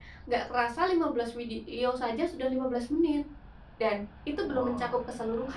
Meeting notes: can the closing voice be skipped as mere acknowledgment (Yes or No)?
Yes